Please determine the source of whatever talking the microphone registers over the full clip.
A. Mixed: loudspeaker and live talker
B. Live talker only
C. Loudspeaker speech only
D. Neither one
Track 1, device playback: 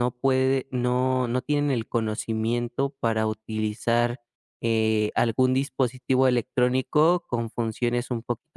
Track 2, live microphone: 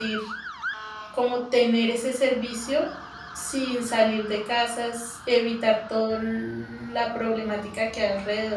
B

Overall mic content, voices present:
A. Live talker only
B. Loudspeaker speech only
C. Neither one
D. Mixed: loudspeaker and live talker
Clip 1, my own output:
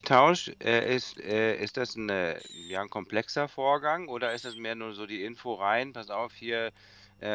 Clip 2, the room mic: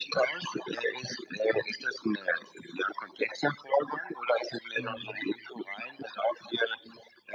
D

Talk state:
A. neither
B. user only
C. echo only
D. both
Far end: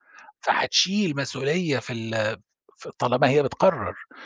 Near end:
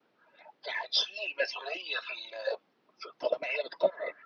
C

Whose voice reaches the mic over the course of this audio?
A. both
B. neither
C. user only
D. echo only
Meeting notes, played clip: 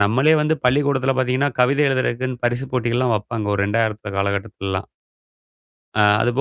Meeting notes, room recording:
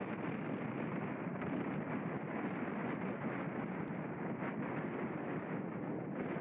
B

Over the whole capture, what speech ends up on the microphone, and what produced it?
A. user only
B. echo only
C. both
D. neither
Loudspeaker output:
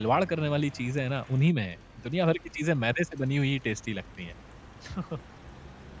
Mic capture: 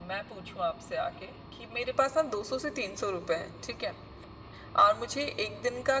A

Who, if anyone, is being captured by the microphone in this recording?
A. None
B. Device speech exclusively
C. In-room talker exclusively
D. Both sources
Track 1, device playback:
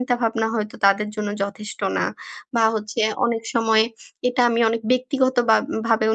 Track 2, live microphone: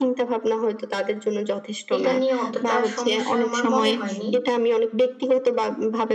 D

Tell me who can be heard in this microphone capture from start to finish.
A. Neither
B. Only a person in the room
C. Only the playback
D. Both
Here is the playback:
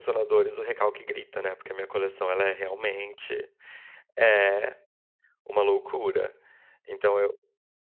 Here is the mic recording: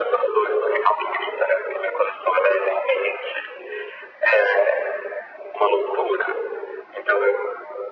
C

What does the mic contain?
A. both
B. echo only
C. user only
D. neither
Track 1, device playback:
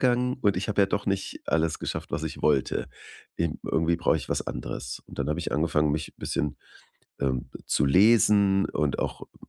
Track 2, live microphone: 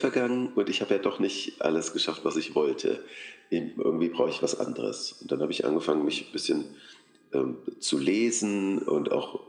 B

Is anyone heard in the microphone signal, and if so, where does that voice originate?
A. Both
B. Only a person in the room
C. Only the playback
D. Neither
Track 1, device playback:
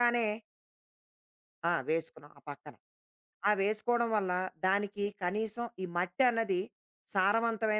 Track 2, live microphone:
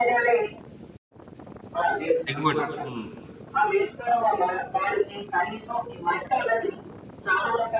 A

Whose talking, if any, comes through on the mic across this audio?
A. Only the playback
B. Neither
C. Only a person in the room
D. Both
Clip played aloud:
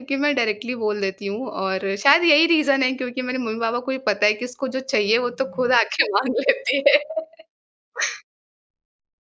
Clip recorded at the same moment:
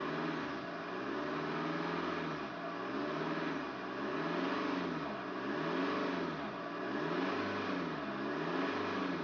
B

